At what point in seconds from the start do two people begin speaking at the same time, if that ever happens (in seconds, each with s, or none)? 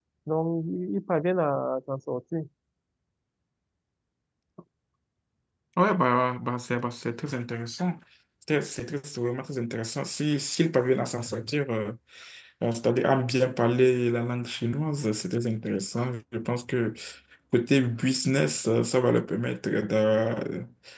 none